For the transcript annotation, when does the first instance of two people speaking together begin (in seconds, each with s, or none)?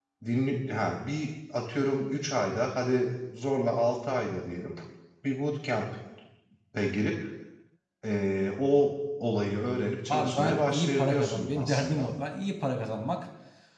10.1 s